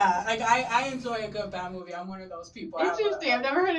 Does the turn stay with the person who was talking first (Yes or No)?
No